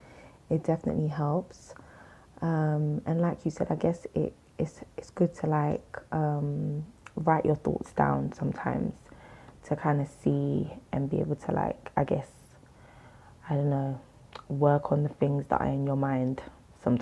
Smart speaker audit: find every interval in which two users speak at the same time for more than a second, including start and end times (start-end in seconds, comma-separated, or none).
none